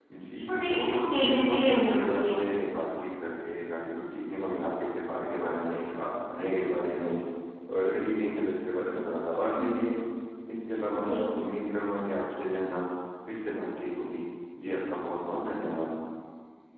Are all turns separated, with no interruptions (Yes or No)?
No